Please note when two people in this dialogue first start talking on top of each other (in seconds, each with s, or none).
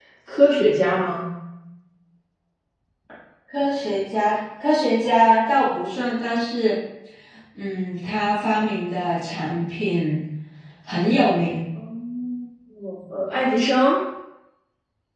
none